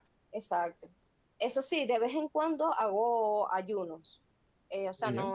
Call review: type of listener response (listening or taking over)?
listening